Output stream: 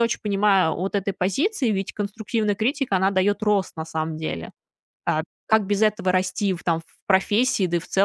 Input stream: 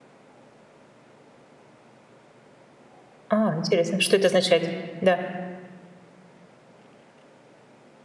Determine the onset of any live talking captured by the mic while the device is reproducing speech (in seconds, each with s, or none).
3.3 s